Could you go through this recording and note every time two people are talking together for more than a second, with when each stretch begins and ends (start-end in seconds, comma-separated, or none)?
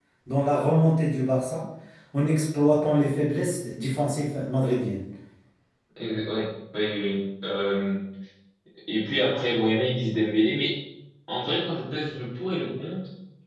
none